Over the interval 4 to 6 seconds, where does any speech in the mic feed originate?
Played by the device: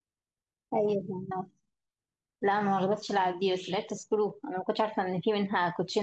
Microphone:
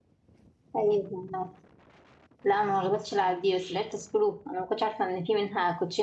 echo only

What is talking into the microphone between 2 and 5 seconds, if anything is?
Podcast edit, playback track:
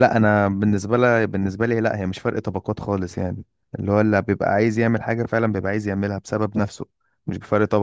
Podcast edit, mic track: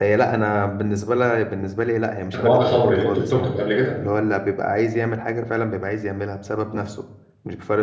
both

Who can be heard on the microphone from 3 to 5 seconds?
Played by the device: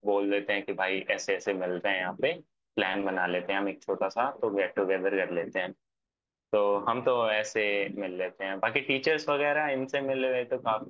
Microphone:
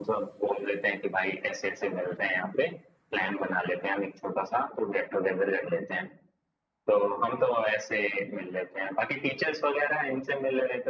echo only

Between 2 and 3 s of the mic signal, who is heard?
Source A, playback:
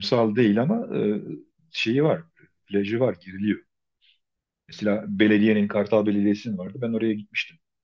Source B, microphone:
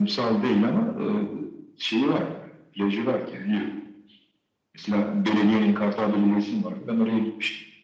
echo only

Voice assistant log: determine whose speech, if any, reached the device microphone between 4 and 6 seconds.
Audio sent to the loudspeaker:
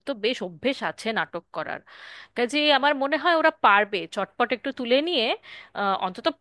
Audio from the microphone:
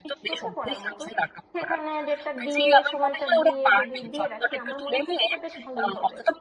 both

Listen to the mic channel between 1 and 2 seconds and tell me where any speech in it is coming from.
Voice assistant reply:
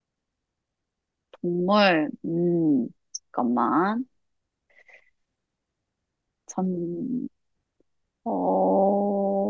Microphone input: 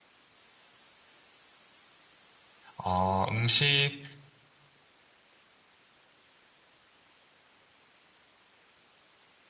neither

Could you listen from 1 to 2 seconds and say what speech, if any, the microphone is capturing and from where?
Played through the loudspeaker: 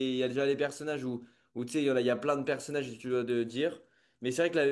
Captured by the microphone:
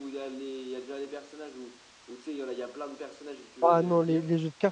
echo only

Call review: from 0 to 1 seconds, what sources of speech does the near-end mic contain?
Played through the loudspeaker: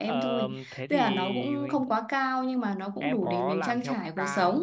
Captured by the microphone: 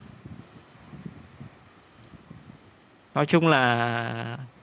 neither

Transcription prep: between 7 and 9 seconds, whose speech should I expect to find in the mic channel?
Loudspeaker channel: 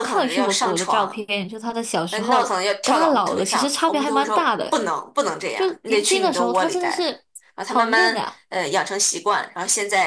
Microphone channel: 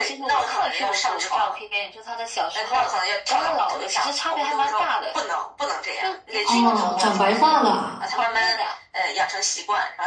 both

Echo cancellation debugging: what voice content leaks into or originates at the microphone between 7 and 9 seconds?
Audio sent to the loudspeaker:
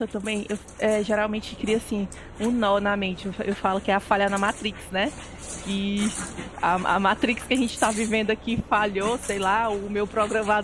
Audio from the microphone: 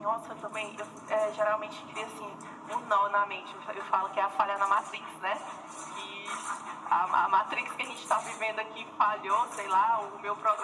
echo only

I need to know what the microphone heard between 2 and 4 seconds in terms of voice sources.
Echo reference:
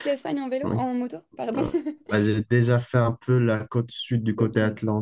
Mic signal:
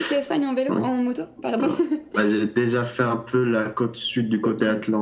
echo only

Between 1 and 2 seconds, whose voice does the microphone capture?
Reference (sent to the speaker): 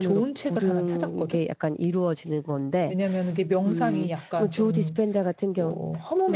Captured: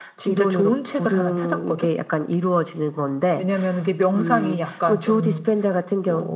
echo only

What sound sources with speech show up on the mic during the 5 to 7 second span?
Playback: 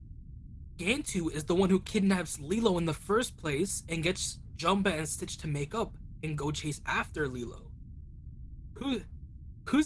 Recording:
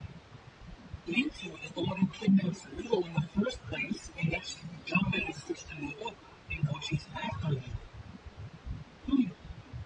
echo only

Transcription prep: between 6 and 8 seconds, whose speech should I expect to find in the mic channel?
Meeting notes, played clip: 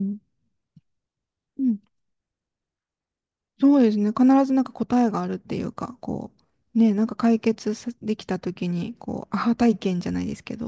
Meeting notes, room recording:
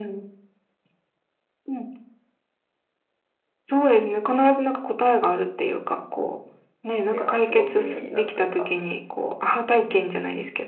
both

